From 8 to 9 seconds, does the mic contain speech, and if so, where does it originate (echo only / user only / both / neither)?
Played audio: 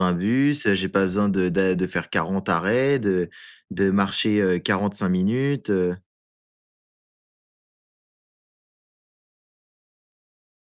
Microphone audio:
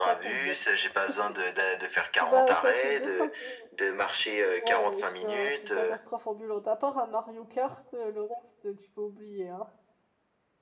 user only